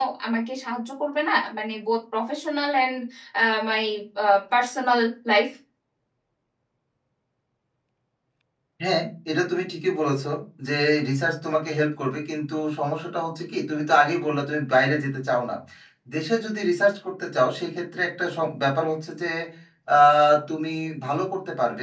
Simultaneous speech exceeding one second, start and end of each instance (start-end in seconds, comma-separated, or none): none